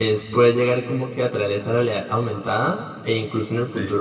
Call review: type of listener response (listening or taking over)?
listening